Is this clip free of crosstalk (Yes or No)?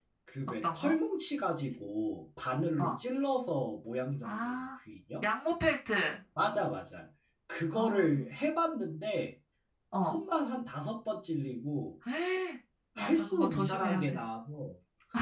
No